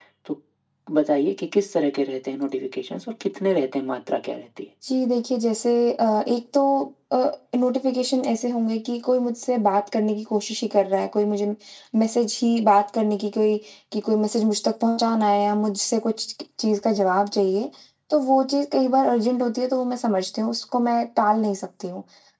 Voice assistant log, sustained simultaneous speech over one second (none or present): none